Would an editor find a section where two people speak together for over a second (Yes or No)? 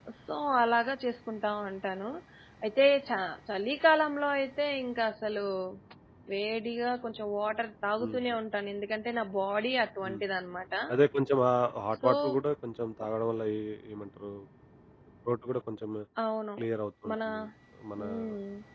No